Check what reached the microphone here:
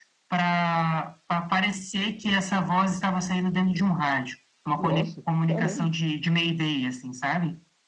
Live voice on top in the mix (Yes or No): No